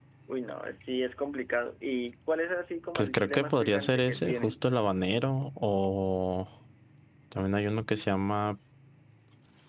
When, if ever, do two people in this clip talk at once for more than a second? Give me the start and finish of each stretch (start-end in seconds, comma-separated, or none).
3.0-4.5